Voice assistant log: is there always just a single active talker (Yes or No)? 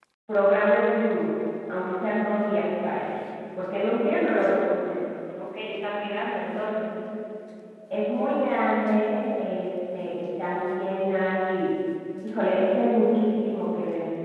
Yes